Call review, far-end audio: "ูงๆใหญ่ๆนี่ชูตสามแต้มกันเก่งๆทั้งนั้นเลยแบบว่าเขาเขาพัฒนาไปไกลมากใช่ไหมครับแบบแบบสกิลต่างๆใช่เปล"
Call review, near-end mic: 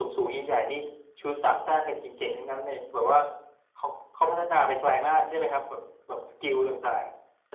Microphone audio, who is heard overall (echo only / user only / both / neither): echo only